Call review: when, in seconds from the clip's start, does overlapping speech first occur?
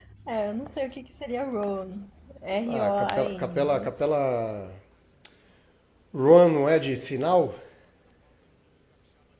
2.6 s

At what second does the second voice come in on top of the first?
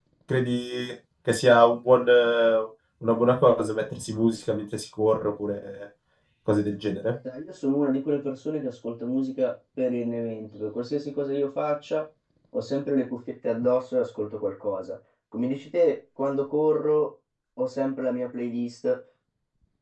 none

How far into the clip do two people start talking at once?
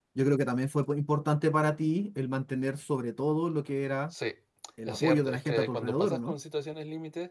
4.9 s

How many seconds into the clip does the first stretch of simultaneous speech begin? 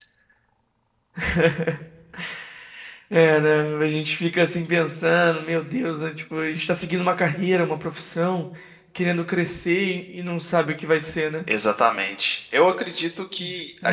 none

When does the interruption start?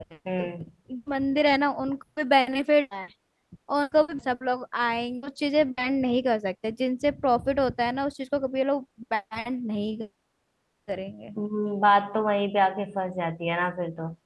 none

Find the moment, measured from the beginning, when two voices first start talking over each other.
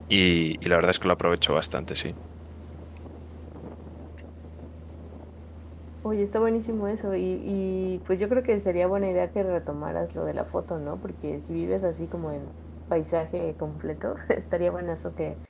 none

